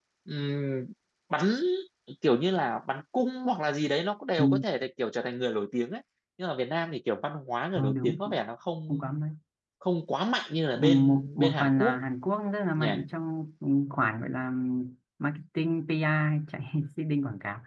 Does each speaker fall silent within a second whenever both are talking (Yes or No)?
No